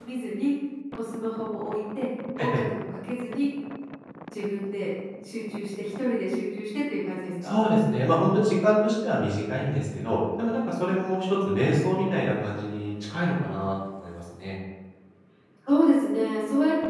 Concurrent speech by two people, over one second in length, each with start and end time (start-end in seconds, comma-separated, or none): none